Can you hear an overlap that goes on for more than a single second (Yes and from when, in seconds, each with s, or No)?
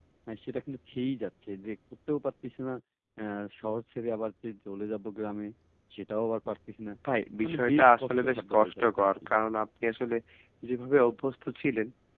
Yes, from 7.4 s